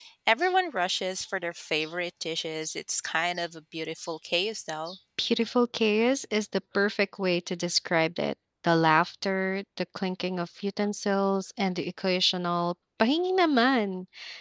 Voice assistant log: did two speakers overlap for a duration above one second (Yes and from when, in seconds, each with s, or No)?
No